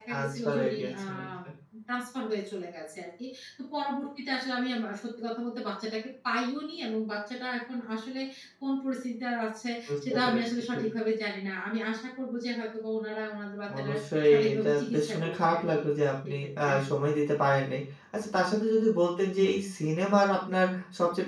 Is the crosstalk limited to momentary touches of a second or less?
No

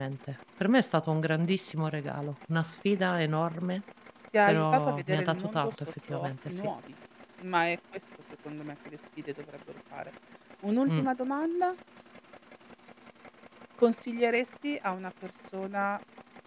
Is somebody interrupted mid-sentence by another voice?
Yes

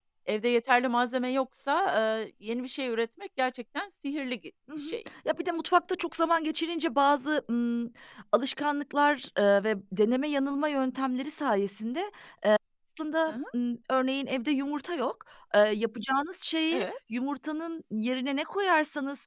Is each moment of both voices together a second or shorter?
Yes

